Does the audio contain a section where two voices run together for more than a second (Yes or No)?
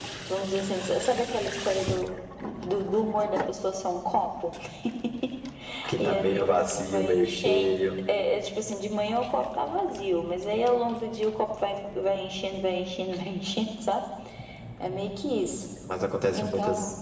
Yes